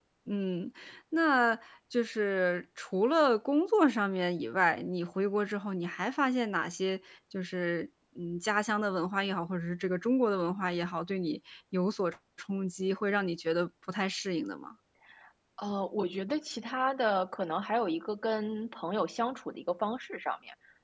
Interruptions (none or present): none